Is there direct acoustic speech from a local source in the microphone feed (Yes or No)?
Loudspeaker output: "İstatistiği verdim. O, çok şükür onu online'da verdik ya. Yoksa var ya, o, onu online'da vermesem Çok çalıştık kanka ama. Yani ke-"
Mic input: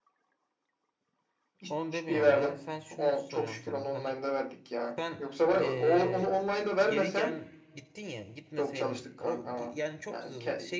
Yes